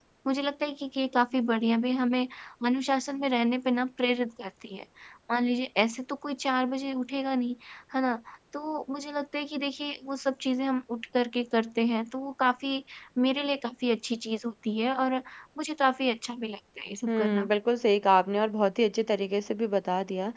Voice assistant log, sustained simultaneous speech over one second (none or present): none